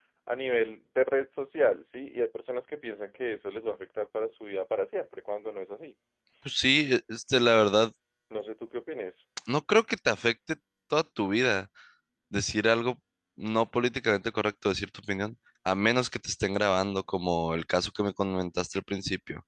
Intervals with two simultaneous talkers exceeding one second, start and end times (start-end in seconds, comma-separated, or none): none